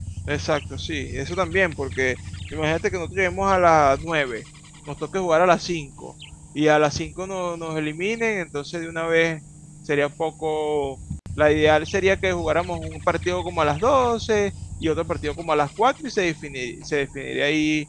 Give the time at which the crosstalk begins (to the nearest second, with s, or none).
none